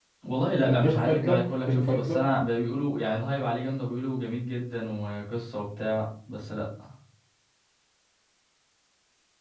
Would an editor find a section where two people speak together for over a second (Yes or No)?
Yes